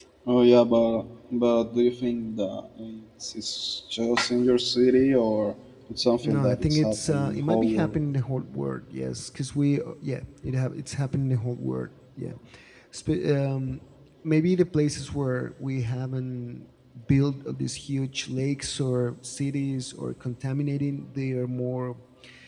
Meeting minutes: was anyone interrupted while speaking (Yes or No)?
Yes